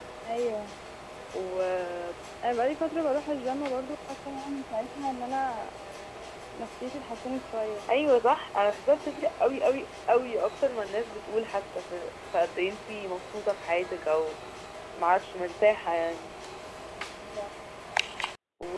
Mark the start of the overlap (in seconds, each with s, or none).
none